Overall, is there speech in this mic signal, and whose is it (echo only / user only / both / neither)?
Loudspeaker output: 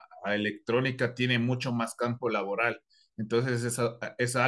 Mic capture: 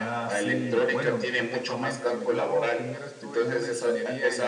both